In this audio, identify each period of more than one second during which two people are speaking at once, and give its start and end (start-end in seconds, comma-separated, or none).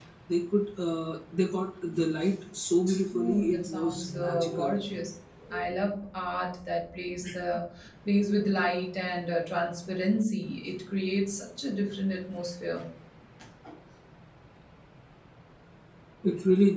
3.1-4.7